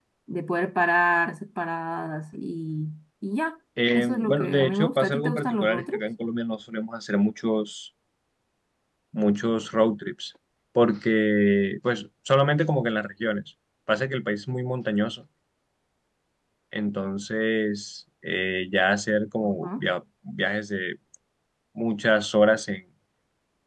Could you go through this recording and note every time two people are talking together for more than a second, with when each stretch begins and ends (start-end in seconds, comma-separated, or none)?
3.9-6.1